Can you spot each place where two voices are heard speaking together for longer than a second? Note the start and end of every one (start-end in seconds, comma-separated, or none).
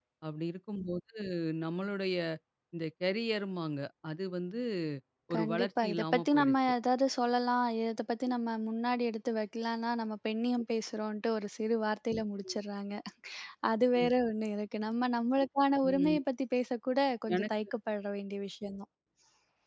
5.3-6.6